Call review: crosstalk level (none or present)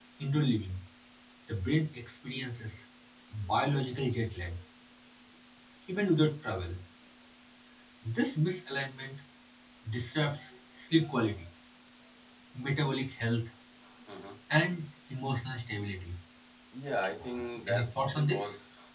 present